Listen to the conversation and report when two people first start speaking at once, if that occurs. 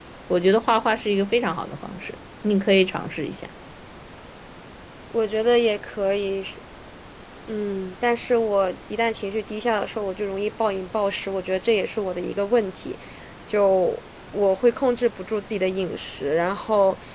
none

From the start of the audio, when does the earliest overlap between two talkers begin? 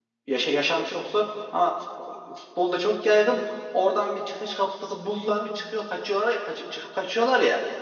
none

